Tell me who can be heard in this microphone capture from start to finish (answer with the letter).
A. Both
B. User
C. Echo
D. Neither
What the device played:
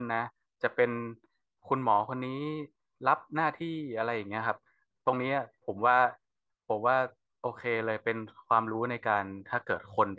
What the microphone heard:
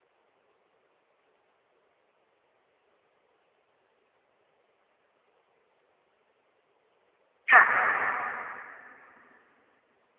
B